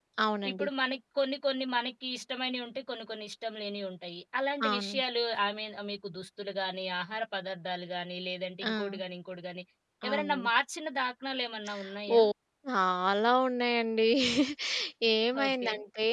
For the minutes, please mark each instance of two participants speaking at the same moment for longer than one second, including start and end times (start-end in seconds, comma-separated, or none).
none